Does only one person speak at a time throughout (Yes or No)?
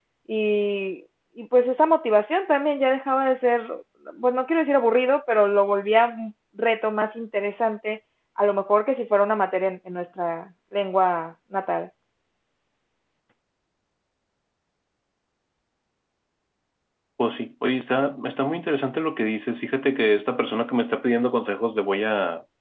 Yes